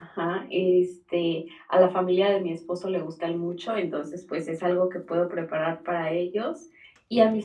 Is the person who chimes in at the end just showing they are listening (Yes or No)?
Yes